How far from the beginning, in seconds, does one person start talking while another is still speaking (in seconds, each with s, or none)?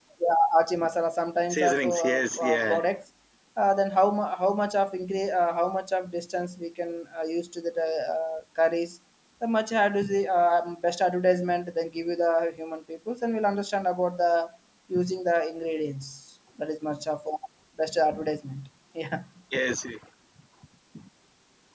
1.5 s